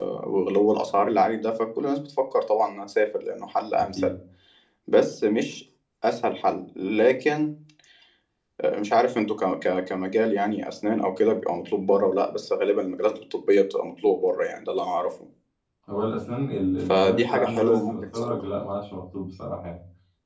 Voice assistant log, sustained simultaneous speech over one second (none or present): present